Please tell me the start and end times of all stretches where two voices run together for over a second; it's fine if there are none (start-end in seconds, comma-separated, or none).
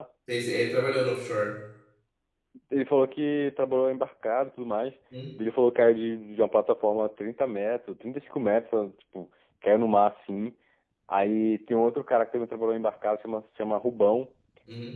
none